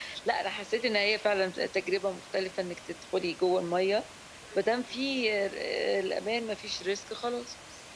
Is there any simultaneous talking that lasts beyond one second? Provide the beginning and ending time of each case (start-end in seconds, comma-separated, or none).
none